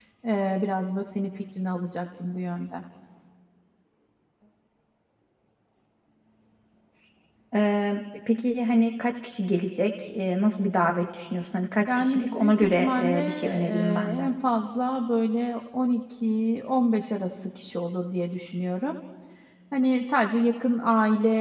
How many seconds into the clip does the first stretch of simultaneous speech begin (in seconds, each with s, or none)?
11.9 s